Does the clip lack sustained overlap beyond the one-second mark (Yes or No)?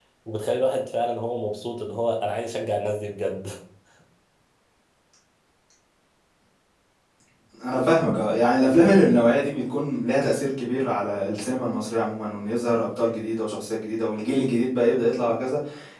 Yes